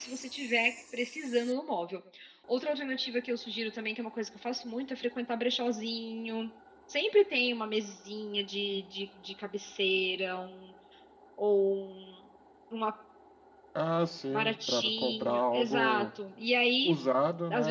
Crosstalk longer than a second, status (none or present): present